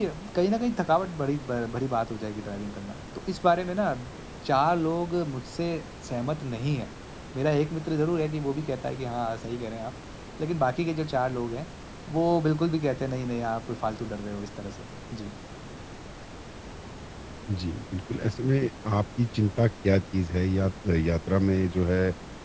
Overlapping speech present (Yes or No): No